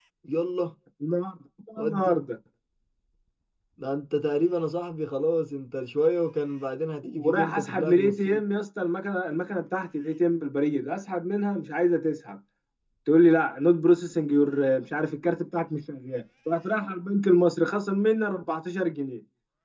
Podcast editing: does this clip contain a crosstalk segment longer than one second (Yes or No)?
Yes